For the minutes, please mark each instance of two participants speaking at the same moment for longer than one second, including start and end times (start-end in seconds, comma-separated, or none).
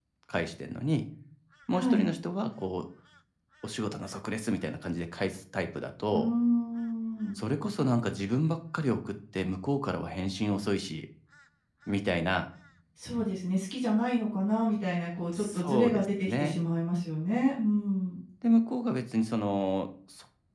15.3-16.6